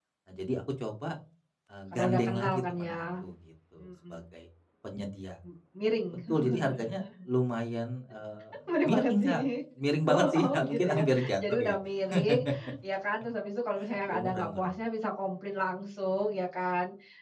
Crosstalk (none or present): present